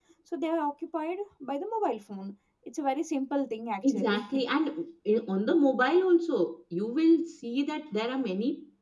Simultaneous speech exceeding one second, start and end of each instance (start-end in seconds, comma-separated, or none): none